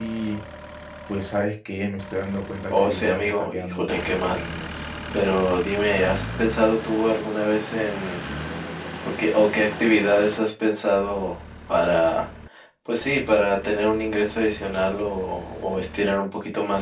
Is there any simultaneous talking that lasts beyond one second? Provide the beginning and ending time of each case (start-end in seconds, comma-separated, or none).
2.7-4.4